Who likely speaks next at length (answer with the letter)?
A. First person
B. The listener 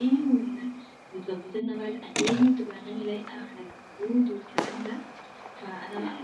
A